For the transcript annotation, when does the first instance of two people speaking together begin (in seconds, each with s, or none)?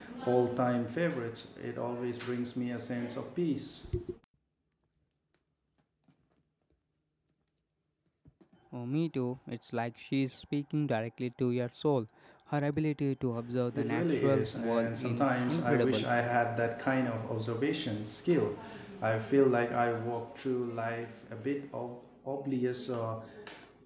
13.7 s